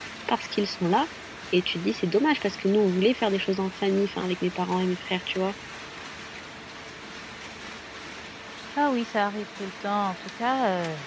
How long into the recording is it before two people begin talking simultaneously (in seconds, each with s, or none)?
none